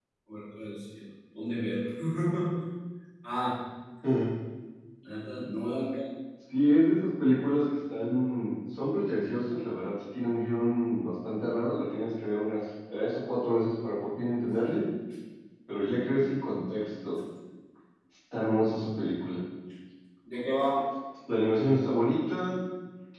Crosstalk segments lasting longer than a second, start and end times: none

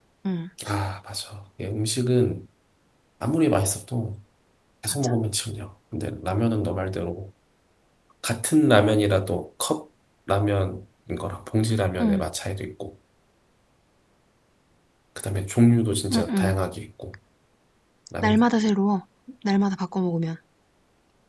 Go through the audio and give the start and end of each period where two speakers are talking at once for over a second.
none

